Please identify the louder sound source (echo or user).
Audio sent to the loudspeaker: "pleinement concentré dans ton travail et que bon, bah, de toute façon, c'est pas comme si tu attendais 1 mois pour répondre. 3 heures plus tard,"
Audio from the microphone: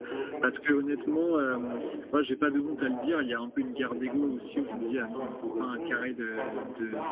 user